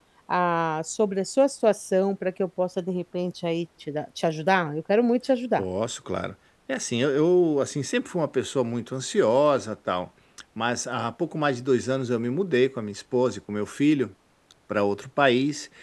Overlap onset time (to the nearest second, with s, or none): none